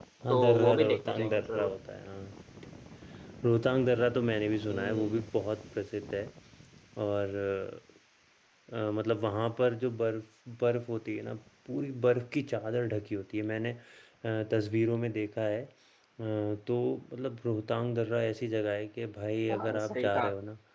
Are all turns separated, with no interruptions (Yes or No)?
No